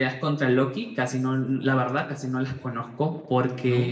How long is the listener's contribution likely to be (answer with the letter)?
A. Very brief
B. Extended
A